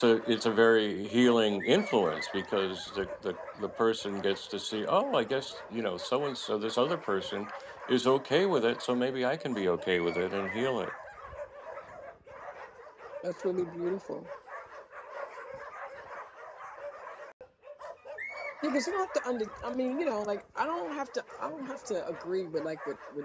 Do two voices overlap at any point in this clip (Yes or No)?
No